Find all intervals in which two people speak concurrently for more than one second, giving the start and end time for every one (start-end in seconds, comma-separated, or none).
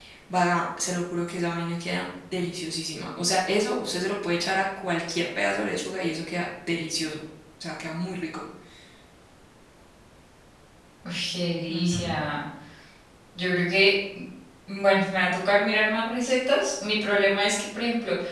none